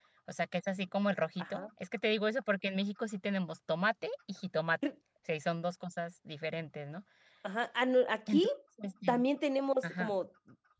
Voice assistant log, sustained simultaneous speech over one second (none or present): none